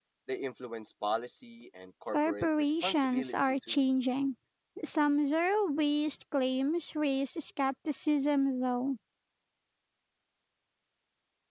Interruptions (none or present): present